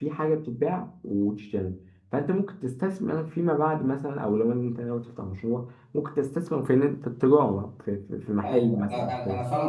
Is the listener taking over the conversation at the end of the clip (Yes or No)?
Yes